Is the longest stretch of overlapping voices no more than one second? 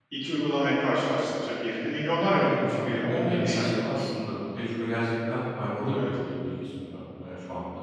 No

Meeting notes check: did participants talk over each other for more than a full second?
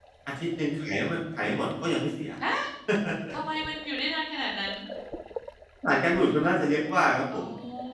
No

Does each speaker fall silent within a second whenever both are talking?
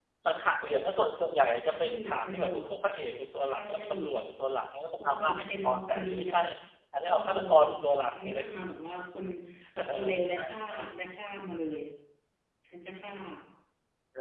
No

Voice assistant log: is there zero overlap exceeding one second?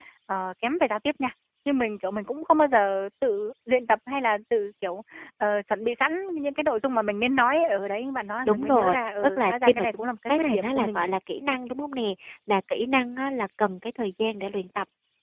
No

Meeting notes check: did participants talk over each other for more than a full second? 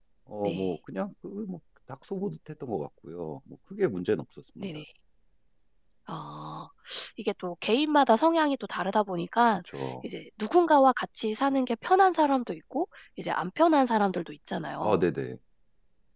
No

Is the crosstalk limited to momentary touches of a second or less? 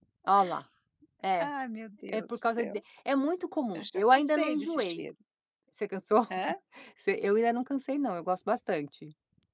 No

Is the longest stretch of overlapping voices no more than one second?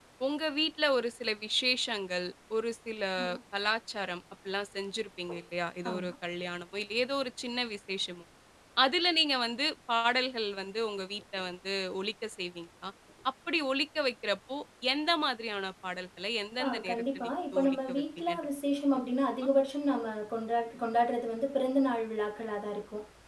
No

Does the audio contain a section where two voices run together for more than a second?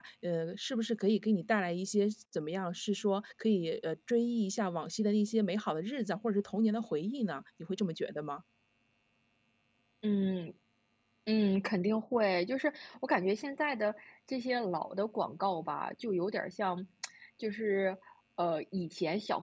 No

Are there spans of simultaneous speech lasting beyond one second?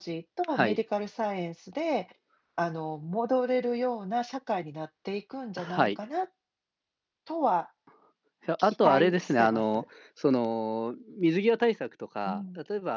Yes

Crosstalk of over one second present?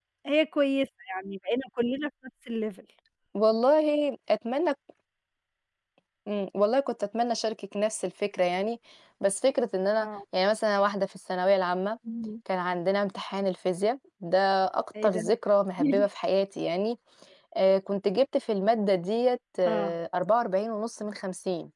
No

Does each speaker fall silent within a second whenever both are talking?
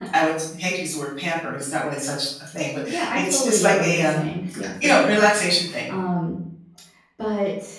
No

